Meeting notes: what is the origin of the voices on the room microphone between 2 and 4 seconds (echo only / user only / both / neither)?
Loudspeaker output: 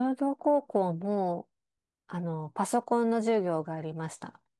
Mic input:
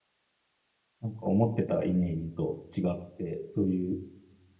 user only